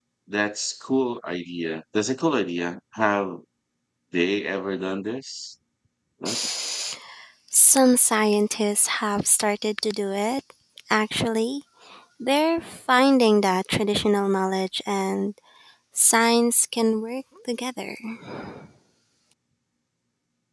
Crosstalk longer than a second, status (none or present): none